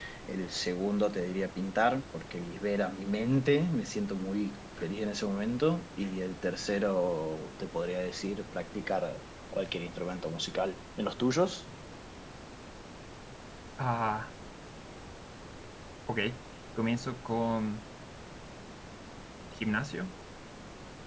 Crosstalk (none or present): none